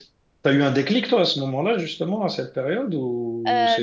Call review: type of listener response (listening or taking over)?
taking over